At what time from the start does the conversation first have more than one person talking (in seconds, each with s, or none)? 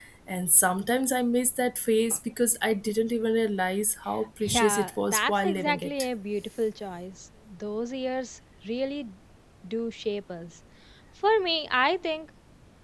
4.4 s